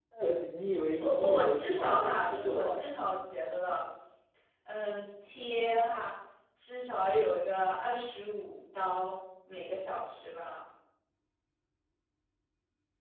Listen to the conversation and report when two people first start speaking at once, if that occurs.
1.0 s

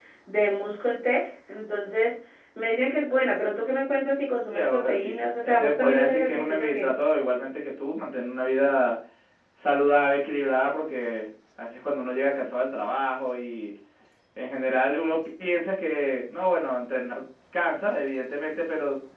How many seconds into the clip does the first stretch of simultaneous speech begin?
4.5 s

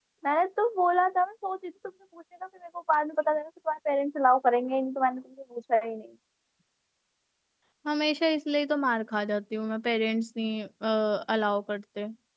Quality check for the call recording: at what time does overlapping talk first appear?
none

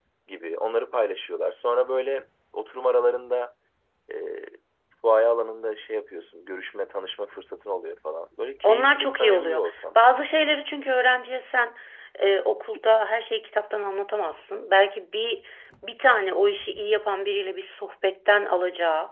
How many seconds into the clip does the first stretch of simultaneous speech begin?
8.6 s

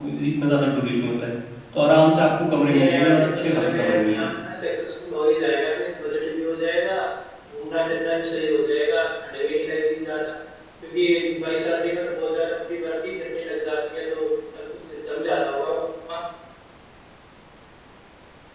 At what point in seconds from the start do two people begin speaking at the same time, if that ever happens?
2.6 s

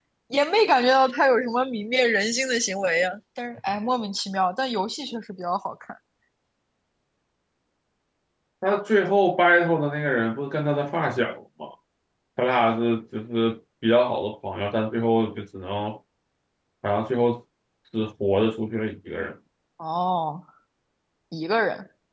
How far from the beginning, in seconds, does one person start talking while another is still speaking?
none

